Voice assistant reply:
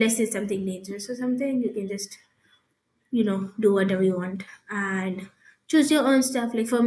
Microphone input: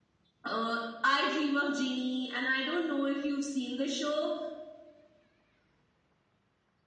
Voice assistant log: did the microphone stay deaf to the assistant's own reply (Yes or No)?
Yes